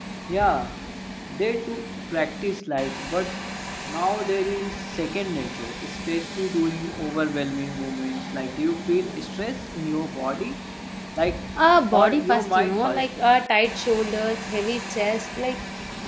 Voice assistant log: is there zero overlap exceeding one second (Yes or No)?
No